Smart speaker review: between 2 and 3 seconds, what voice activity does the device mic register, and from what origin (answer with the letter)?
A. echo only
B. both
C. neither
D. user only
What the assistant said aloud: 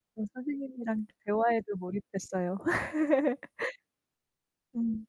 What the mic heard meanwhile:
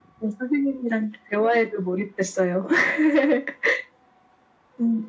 A